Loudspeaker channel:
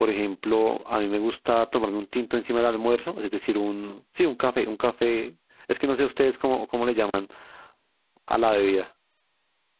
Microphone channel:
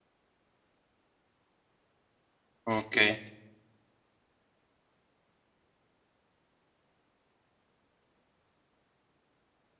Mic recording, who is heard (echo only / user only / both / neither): user only